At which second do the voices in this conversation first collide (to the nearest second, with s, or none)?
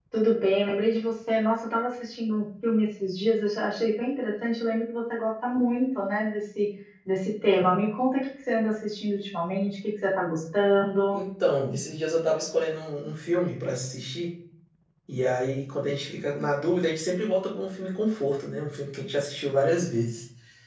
none